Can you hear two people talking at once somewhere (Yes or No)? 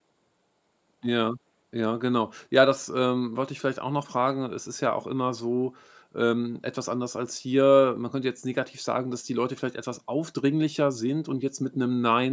No